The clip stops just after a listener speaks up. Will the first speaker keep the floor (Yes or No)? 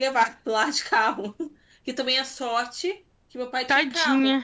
Yes